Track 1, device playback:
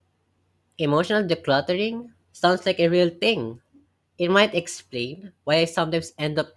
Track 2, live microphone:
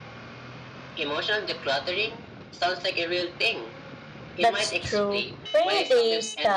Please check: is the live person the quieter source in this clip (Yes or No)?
No